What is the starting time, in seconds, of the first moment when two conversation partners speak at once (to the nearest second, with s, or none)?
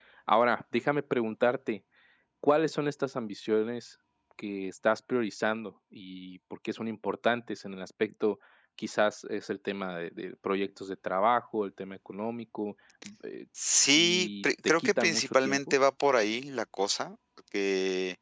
14 s